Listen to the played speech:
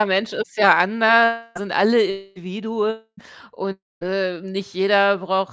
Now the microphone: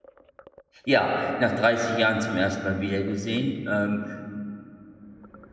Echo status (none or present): none